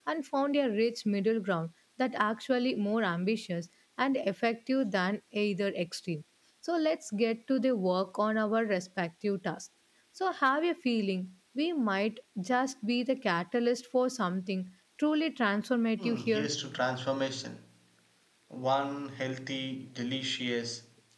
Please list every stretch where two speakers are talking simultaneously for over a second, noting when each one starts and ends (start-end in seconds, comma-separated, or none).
none